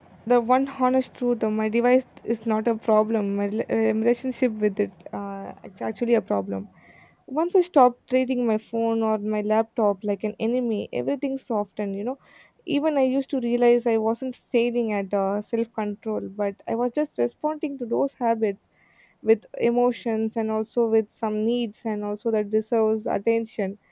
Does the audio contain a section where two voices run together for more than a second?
No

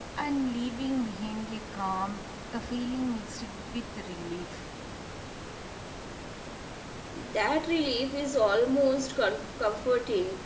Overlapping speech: No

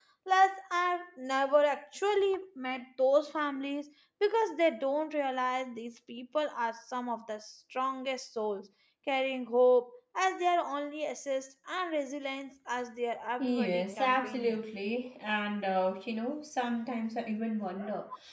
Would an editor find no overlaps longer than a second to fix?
No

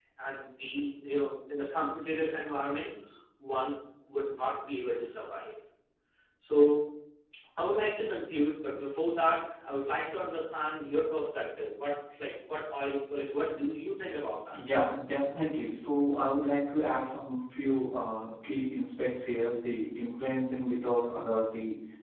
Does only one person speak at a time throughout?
Yes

